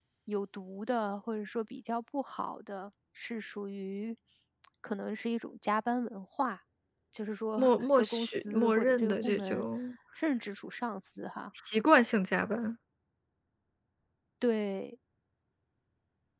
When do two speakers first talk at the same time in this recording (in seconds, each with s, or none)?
7.6 s